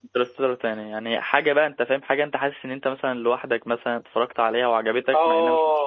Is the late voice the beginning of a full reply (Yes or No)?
Yes